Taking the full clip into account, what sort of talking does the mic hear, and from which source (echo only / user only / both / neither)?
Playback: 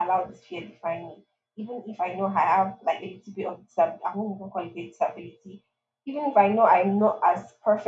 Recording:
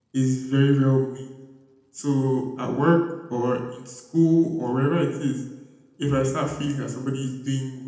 user only